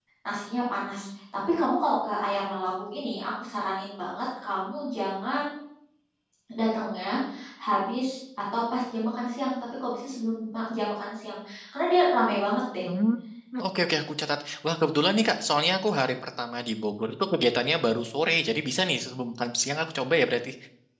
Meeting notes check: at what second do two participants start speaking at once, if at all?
none

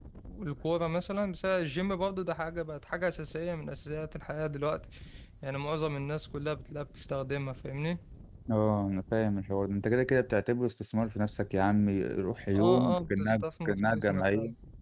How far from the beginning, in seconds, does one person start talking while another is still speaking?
12.5 s

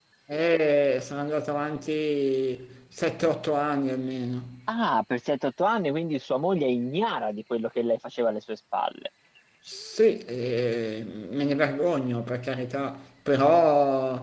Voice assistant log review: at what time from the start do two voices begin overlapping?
none

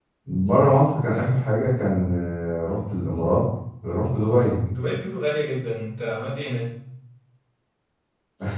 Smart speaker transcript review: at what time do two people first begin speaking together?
none

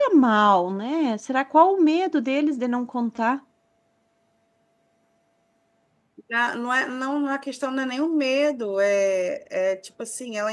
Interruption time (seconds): none

